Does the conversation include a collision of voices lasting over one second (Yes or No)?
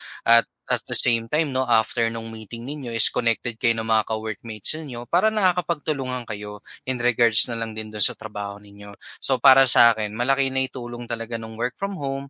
No